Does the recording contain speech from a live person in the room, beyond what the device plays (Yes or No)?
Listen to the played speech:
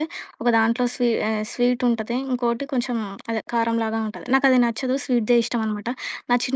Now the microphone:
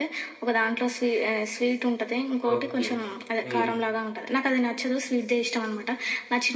Yes